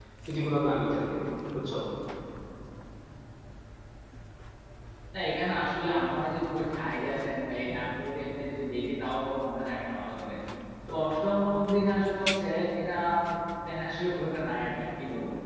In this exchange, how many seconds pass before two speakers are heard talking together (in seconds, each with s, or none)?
none